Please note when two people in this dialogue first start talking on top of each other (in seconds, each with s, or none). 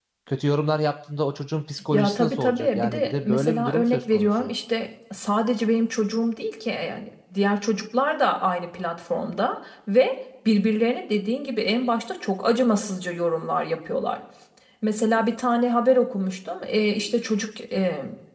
1.9 s